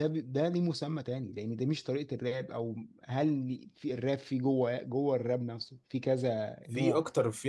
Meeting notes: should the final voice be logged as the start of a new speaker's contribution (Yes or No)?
Yes